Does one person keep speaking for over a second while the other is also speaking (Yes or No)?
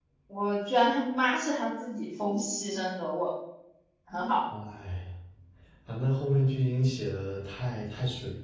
No